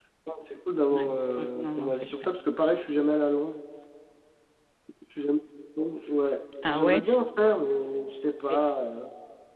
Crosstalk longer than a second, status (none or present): present